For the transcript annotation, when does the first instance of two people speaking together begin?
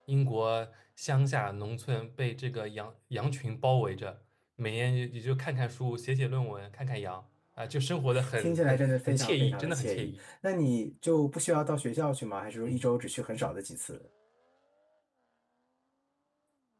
8 s

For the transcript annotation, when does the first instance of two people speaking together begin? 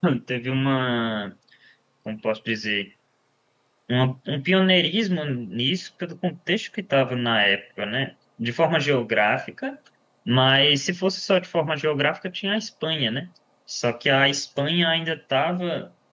none

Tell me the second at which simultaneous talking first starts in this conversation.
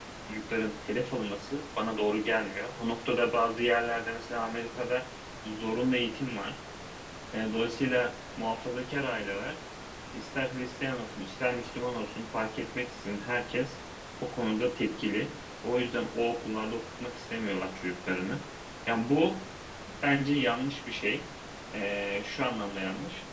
none

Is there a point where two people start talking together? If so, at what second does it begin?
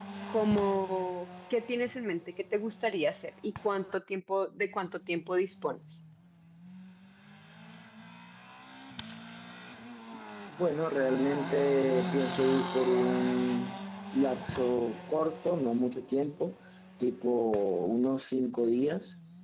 none

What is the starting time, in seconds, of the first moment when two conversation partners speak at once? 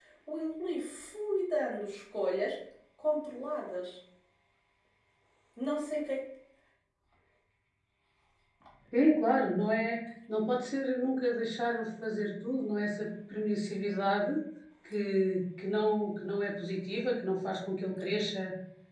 none

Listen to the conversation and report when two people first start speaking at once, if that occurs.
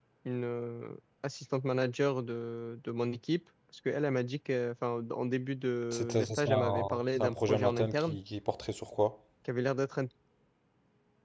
6 s

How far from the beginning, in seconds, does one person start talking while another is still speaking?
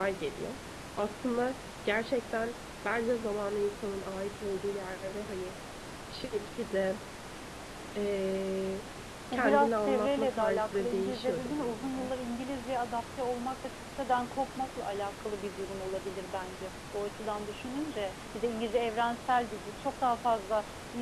9 s

